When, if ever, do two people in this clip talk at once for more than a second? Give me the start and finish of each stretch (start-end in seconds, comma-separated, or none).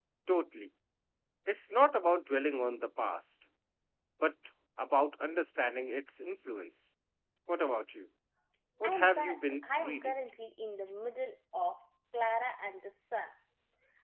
8.8-10.1